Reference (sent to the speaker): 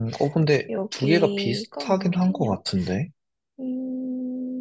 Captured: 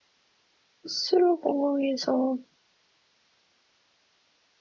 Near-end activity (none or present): present